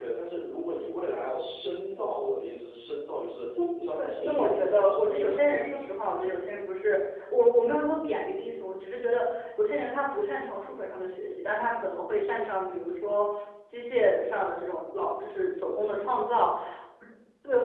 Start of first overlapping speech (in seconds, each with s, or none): 4.0 s